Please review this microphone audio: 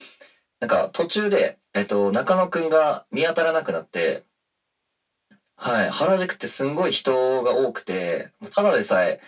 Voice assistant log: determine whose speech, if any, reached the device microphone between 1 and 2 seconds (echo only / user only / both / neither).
echo only